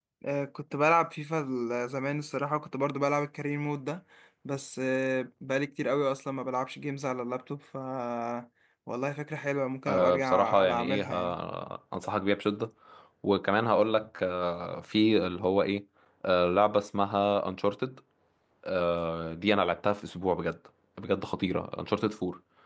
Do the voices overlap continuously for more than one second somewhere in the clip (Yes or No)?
Yes